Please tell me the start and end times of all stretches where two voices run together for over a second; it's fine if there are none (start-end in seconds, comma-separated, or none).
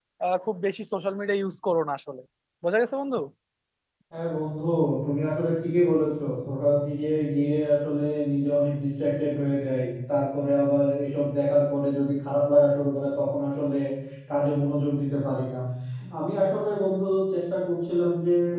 none